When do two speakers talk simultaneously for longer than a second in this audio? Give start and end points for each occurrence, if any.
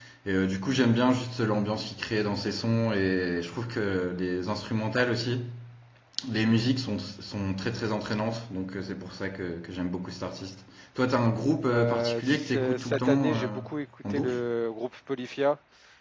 11.7-13.6

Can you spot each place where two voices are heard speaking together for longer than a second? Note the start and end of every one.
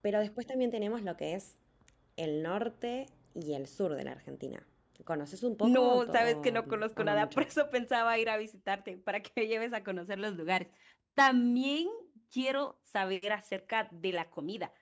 5.6-7.5

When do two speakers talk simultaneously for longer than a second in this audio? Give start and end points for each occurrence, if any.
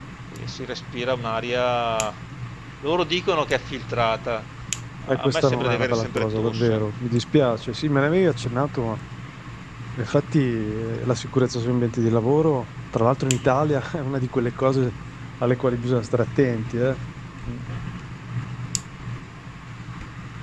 5.1-6.8

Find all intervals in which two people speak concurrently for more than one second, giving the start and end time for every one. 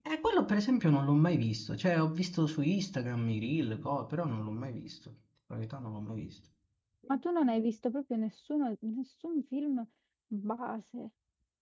none

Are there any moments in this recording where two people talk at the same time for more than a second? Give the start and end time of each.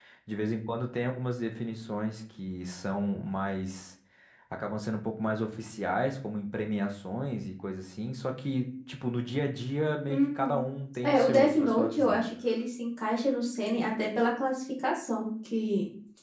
11.0-12.2

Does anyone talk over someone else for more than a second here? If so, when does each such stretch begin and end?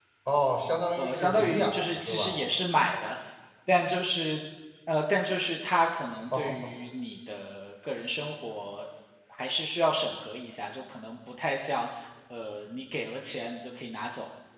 1.0-2.4

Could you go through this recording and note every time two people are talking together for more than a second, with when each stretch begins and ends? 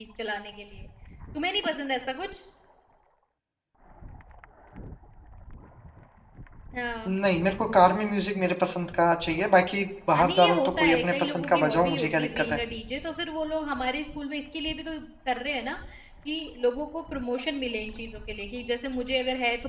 10.1-12.6

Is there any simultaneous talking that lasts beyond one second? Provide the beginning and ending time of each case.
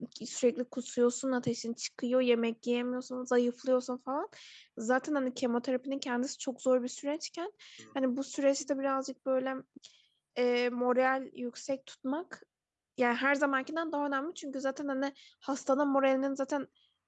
none

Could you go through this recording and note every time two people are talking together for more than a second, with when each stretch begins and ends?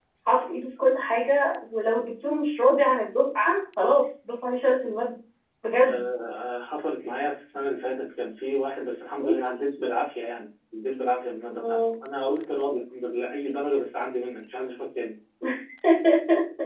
none

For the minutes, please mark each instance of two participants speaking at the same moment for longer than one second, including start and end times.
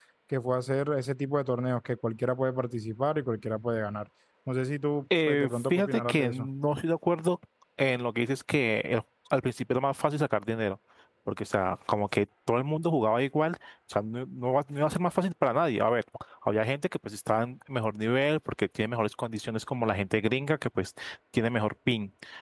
5.3-6.5

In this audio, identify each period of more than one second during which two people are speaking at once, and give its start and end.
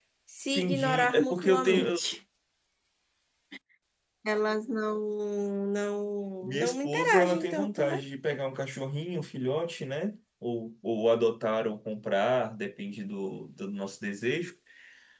0.6-2.0, 6.4-8.0

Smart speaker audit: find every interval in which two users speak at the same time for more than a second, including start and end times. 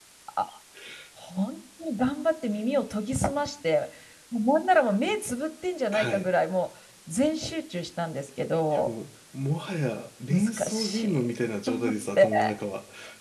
10.3-12.3

